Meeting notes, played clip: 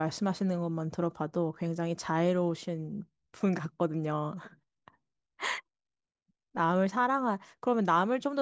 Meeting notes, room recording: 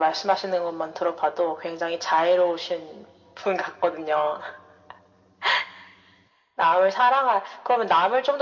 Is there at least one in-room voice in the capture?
No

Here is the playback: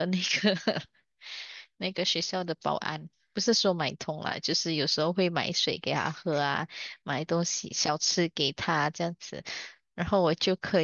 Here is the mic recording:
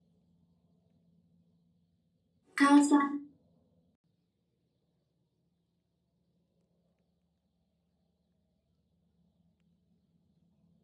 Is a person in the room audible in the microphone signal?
Yes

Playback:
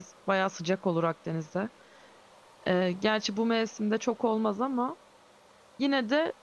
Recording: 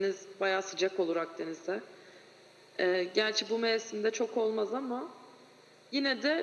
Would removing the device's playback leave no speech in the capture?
Yes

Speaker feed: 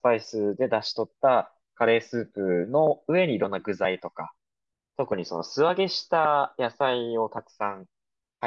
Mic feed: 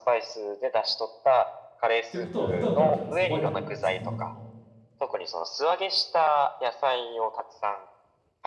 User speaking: Yes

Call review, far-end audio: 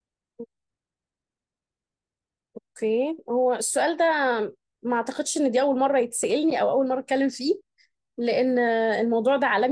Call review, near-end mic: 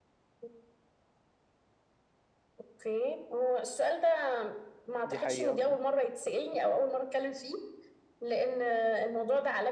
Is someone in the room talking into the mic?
Yes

